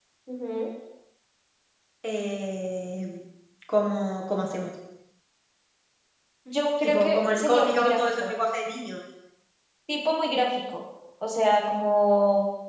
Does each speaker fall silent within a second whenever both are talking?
No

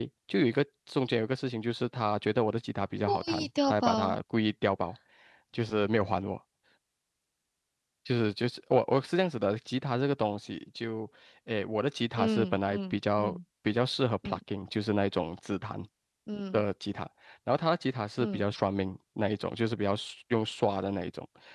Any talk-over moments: Yes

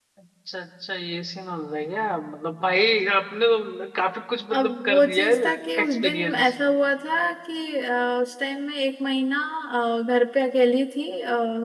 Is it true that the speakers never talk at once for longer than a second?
No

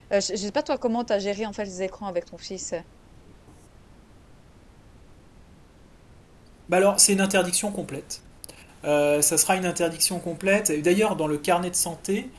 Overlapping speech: No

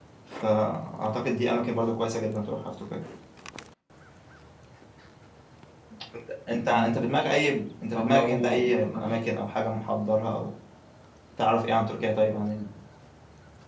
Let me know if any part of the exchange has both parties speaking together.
Yes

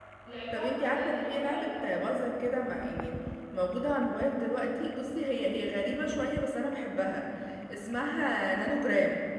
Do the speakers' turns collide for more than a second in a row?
Yes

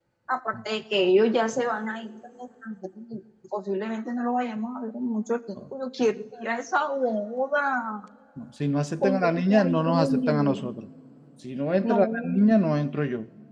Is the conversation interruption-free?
No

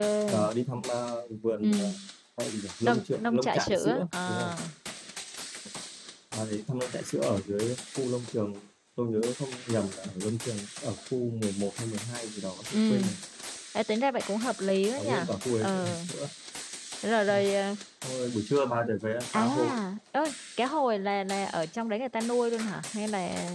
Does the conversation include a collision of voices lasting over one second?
Yes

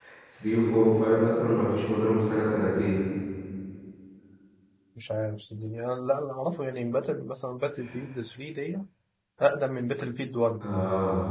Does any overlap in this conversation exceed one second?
No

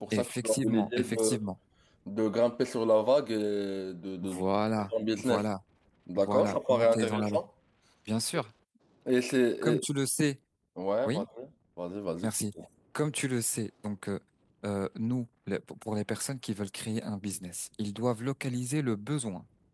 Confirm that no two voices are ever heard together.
No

